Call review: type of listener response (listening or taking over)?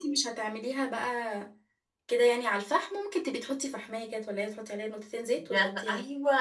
taking over